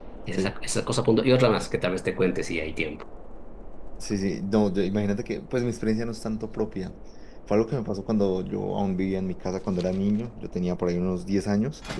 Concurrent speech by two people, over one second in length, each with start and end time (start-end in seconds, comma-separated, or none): none